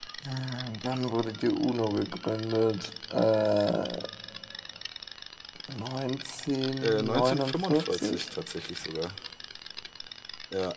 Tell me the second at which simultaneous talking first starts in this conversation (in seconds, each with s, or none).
6.8 s